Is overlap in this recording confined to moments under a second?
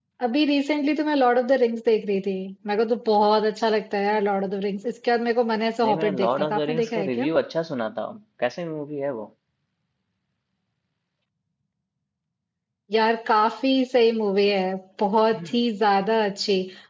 No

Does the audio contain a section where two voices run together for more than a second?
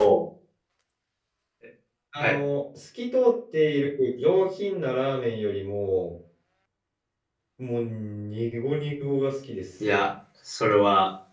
No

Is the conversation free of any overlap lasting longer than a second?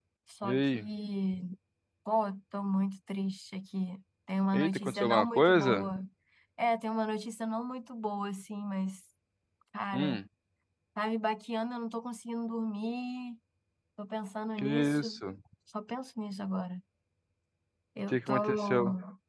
No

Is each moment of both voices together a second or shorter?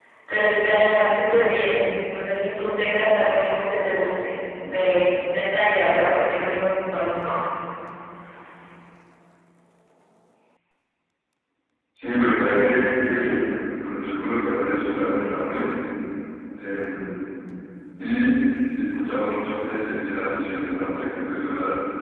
Yes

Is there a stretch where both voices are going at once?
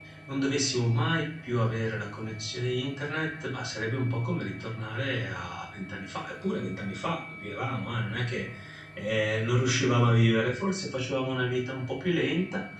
No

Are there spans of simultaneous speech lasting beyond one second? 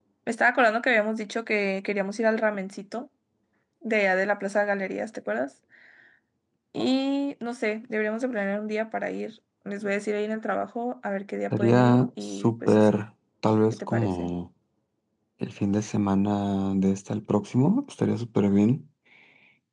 Yes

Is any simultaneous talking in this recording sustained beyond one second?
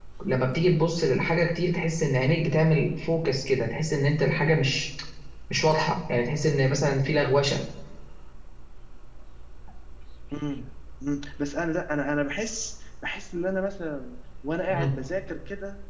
No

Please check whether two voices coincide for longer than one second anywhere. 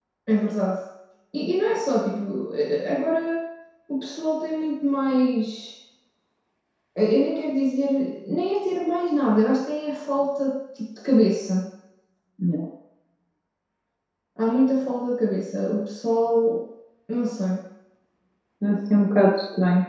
No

